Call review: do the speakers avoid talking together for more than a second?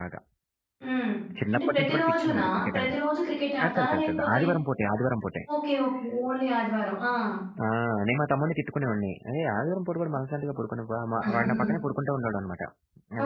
No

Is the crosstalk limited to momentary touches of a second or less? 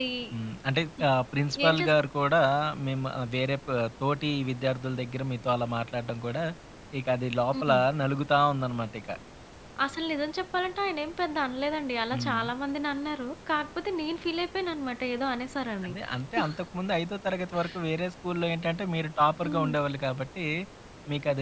Yes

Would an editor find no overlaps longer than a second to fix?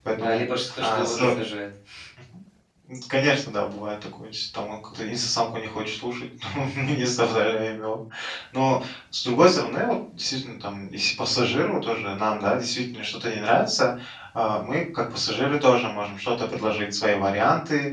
Yes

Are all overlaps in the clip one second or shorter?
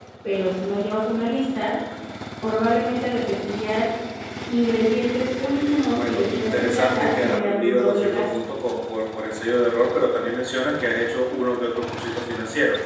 No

